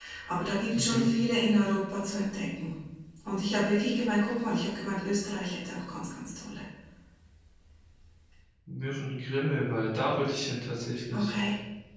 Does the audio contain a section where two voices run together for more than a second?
No

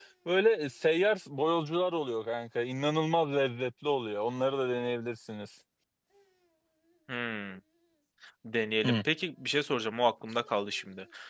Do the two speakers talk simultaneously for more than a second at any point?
No

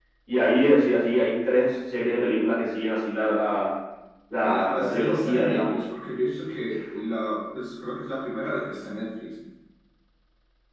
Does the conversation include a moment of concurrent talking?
Yes, from 4.4 s

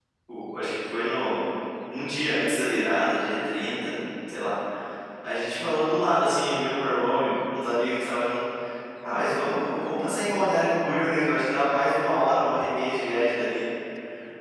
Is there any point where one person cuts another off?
No

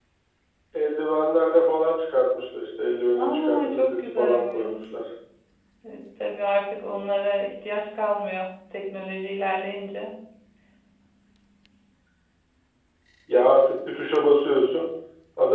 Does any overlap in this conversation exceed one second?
Yes, from 3.1 s

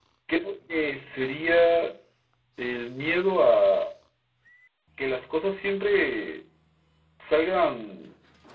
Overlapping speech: No

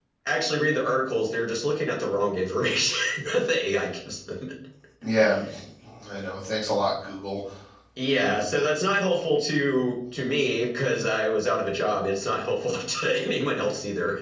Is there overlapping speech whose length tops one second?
No

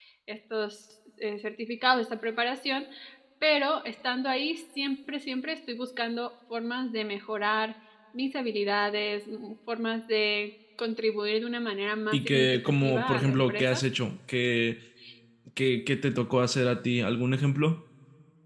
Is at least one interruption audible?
Yes, from 12.1 s

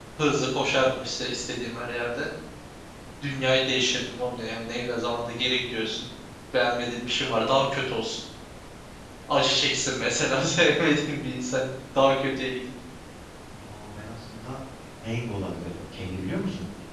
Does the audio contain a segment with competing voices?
No

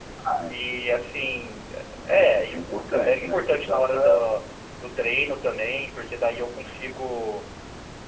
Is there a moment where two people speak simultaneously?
Yes, from 2.1 s

